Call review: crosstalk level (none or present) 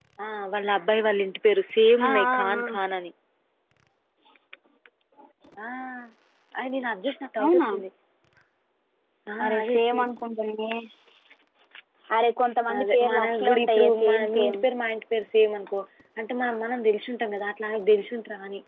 present